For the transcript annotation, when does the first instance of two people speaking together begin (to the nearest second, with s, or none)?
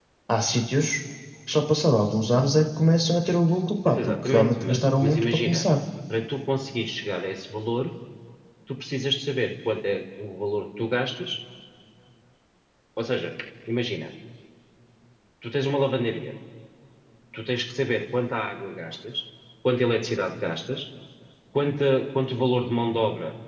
4 s